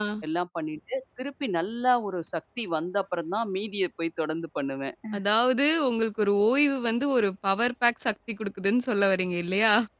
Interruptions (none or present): none